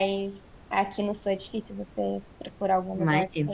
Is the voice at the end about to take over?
Yes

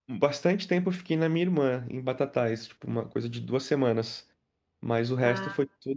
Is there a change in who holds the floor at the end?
No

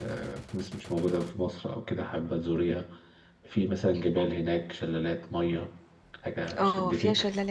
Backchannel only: No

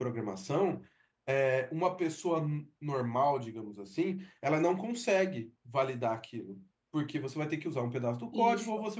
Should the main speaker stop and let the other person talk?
No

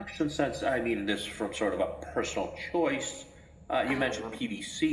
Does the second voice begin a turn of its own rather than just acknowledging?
No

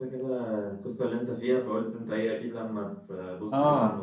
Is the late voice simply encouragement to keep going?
No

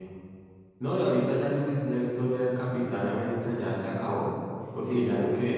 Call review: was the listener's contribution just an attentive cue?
Yes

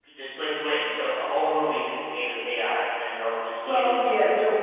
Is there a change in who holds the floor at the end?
Yes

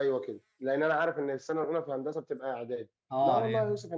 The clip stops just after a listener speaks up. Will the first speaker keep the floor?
Yes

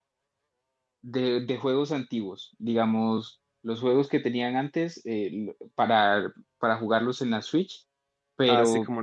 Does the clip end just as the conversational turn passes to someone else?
Yes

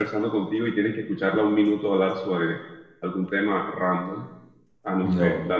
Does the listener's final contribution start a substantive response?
No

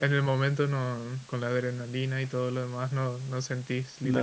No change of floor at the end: No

